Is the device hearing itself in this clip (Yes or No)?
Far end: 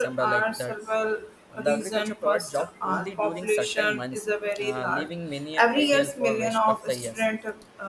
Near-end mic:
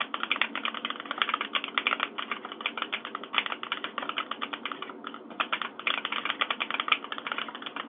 No